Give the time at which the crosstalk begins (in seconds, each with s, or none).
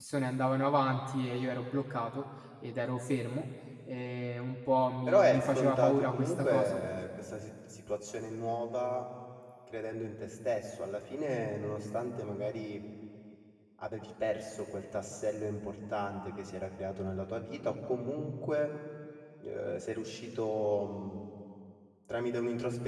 5.1 s